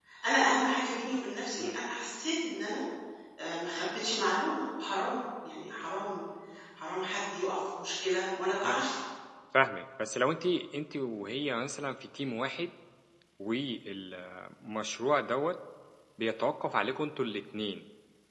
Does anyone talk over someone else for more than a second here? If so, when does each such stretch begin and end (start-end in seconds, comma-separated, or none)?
none